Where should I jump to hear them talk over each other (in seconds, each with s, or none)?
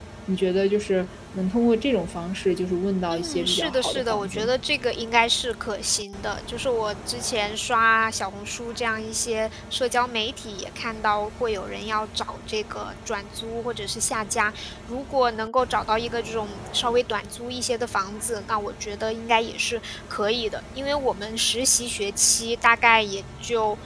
3.1 s